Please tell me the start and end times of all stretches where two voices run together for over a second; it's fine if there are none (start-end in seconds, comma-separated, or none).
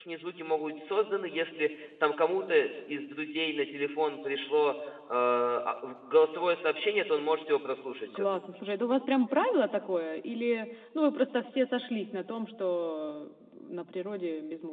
none